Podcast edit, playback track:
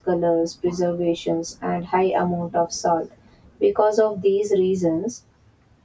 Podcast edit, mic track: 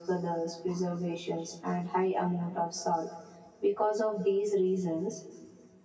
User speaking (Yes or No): No